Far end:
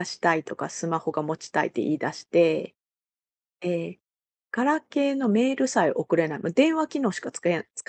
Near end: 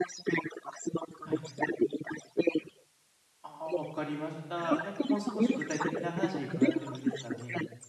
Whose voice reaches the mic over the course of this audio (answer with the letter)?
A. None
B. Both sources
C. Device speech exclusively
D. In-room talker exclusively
B